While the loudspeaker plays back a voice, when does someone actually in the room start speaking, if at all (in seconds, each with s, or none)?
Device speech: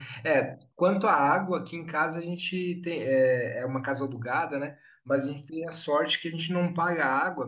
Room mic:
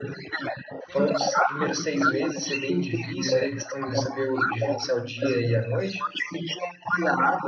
0.9 s